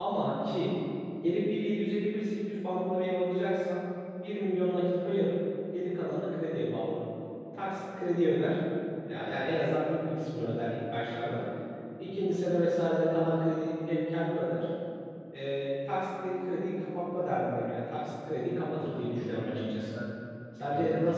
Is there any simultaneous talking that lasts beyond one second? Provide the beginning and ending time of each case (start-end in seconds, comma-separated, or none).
18.7-20.0